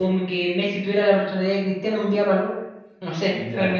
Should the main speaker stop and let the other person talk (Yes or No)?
Yes